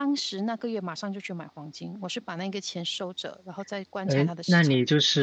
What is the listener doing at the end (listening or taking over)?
taking over